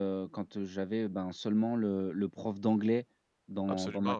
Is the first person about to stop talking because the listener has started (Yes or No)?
No